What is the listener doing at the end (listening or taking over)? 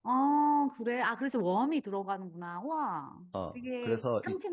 taking over